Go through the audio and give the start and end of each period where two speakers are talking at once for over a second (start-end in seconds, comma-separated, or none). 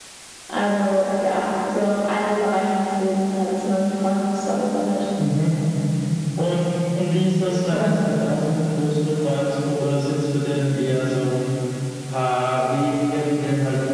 none